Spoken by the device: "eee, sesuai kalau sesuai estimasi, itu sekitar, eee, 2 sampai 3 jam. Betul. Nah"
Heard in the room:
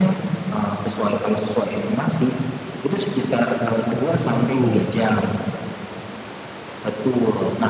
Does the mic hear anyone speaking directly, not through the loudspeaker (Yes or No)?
Yes